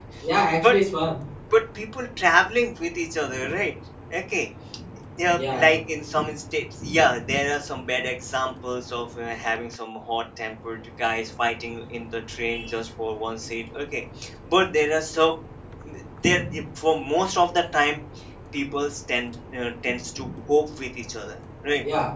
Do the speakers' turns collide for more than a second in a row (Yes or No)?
No